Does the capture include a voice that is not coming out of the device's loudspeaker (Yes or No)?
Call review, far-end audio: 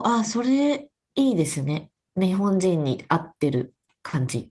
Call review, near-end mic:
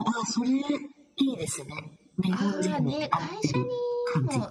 Yes